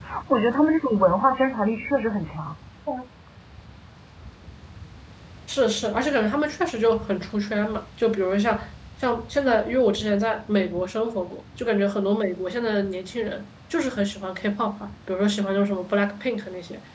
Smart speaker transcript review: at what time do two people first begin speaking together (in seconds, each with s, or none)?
none